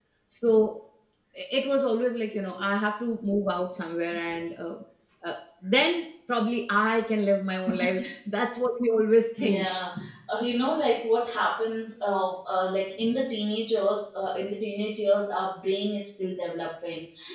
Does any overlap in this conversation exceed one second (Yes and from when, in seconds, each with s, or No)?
No